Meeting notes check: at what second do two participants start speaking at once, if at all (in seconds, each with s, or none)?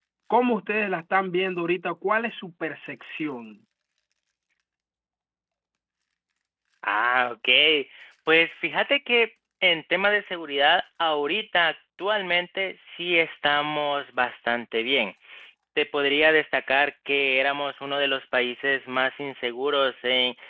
none